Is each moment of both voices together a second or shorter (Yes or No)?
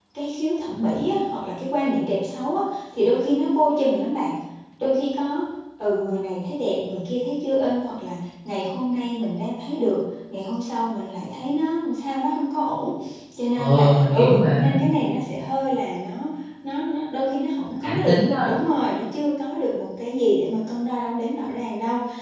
No